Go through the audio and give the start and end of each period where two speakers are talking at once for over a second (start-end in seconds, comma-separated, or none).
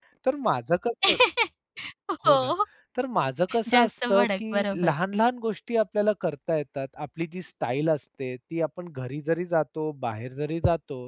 3.7-4.9